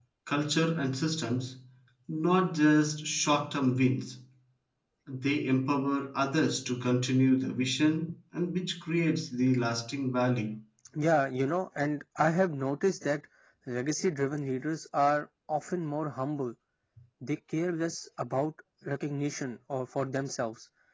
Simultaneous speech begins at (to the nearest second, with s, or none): none